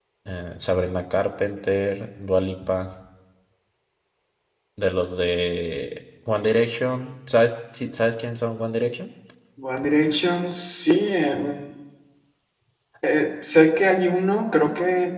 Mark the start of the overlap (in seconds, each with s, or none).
none